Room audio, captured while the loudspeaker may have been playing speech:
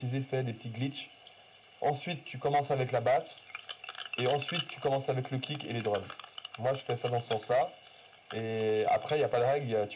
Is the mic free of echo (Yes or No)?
No